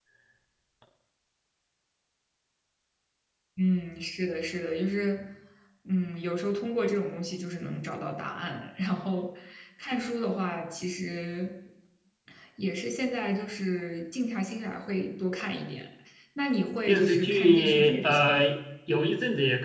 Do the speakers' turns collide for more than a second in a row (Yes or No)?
Yes